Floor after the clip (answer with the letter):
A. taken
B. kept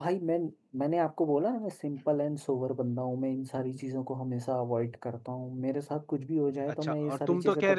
A